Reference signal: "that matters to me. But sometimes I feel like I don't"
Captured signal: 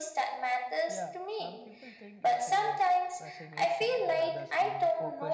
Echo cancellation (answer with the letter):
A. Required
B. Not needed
A